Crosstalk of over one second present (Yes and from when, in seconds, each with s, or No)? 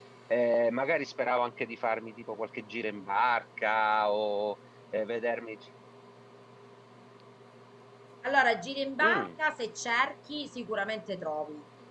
No